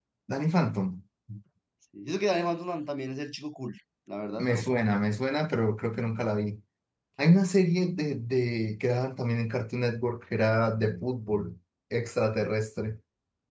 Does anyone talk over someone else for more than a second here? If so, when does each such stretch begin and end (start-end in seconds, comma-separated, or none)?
none